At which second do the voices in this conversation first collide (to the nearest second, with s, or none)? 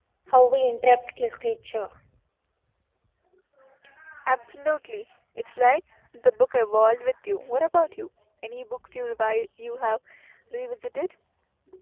none